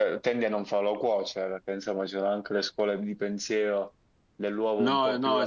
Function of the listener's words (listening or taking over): taking over